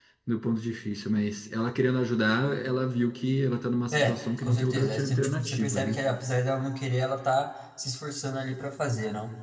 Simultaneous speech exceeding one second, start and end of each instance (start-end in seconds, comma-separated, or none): 3.9-6.0